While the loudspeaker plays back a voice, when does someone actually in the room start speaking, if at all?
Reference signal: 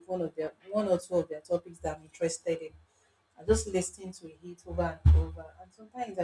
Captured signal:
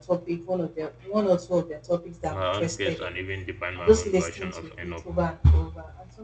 2.3 s

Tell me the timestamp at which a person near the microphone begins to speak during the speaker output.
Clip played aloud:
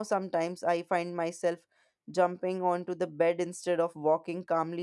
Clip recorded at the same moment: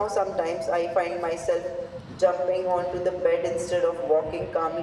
none

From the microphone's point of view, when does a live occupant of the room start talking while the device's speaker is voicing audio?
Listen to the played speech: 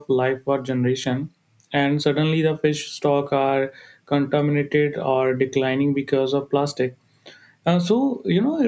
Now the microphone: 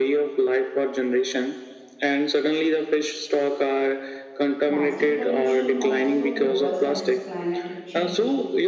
4.7 s

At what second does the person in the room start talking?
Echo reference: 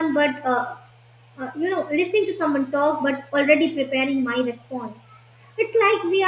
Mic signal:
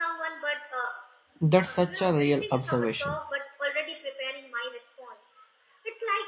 1.4 s

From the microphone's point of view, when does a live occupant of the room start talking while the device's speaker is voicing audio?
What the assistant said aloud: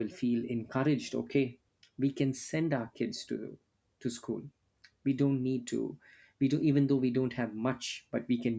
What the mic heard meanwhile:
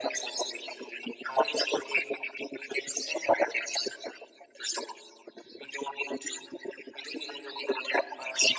none

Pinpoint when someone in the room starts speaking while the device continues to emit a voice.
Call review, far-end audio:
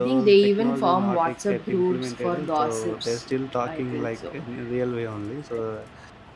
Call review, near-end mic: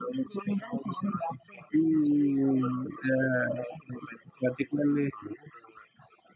1.7 s

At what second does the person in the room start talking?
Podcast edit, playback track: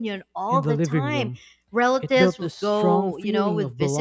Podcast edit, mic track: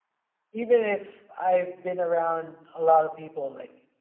0.5 s

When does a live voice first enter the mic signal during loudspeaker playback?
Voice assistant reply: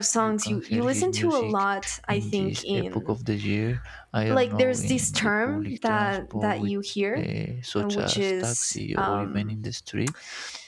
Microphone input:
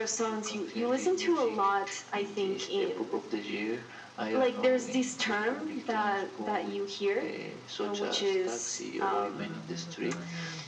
9.3 s

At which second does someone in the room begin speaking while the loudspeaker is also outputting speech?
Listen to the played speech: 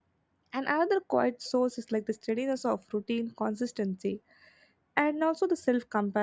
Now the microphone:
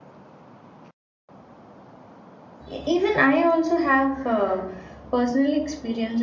2.7 s

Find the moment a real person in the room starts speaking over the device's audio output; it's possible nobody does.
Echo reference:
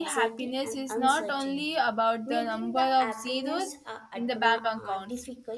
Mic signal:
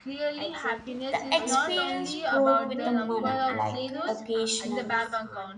1.1 s

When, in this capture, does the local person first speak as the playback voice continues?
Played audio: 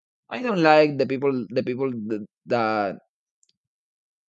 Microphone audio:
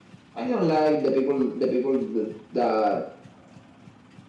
none

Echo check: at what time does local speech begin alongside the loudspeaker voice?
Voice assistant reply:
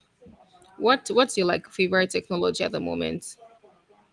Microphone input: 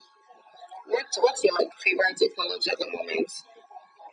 none

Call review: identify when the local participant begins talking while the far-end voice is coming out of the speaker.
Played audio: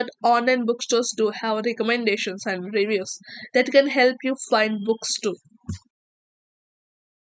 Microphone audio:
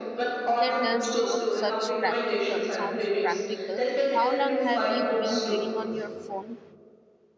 0.5 s

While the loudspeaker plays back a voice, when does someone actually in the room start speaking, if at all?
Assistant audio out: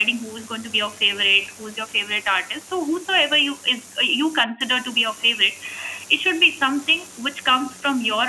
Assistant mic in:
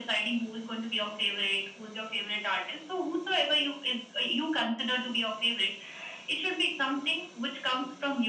none

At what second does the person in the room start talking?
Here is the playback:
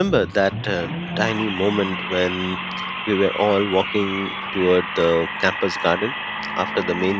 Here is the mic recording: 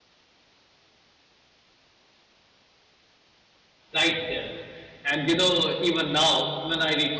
3.9 s

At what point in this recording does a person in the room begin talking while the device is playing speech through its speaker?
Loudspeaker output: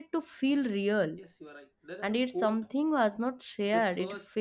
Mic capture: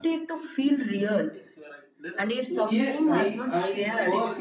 2.6 s

